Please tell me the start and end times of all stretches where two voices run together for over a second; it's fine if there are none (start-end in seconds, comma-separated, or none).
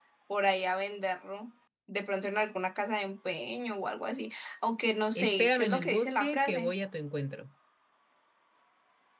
5.2-6.7